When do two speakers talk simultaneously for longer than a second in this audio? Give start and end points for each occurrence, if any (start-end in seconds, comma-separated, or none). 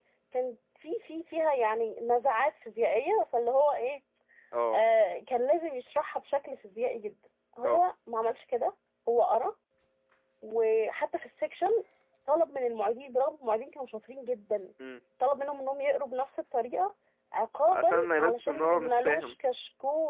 17.7-19.3